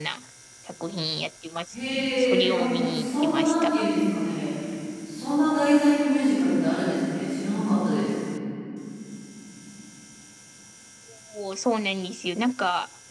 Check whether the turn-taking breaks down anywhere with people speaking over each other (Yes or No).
Yes